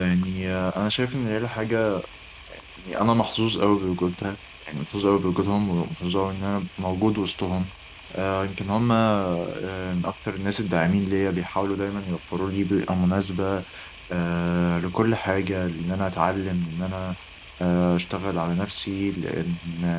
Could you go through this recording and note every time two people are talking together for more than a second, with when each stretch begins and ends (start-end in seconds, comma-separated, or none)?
none